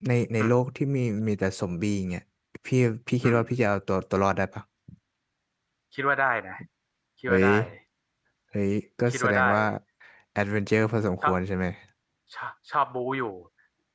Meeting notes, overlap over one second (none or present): none